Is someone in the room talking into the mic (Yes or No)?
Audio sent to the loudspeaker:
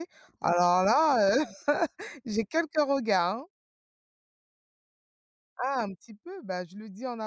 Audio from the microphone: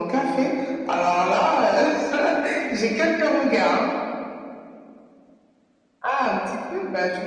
No